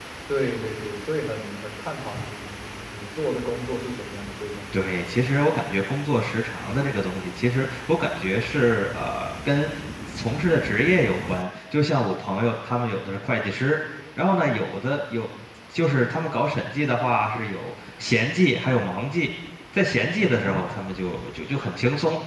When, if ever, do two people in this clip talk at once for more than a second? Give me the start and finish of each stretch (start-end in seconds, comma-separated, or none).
none